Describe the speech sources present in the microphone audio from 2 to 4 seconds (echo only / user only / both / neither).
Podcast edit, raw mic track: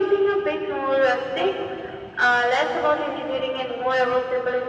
echo only